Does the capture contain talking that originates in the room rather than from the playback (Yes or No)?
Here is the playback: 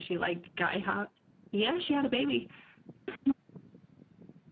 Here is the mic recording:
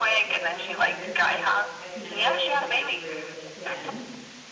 Yes